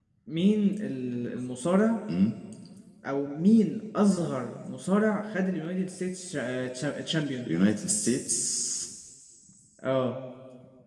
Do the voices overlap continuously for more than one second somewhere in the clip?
No

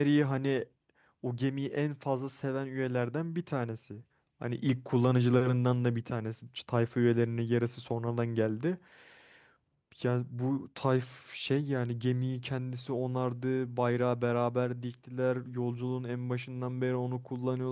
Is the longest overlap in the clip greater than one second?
No

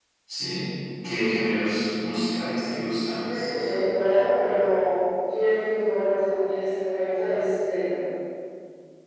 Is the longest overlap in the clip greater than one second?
No

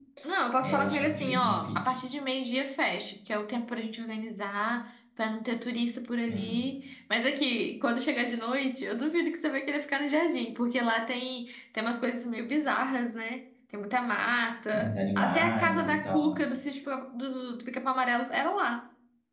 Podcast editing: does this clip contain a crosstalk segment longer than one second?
Yes, from 0.6 s

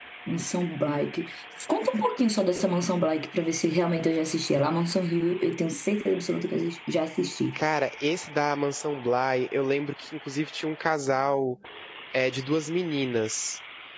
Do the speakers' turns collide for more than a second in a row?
No

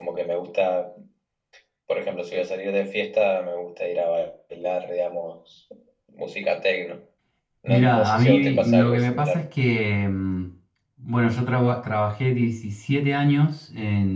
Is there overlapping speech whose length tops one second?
Yes, from 7.7 s

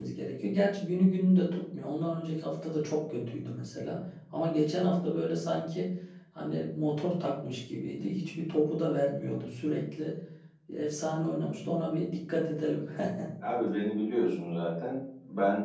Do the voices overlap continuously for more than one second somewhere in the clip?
No

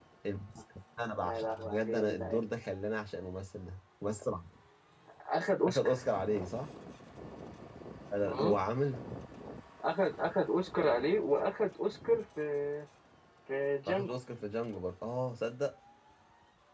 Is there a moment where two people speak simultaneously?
Yes, from 1.2 s

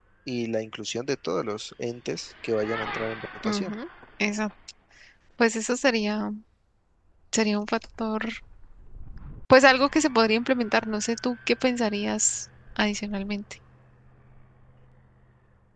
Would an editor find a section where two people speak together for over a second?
No

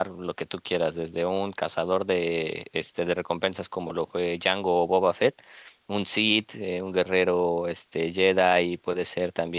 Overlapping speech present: No

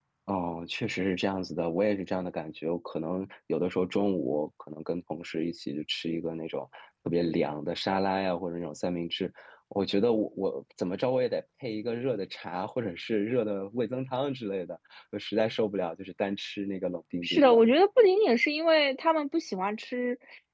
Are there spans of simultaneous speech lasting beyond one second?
No

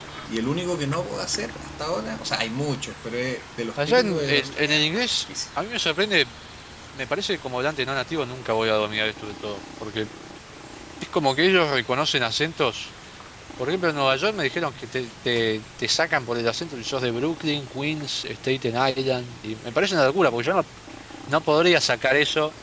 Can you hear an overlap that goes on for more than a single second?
Yes, from 3.8 s

